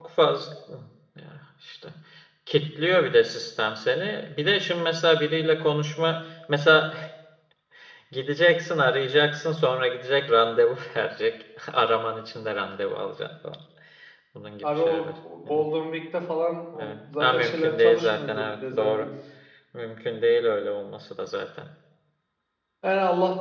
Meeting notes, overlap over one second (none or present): present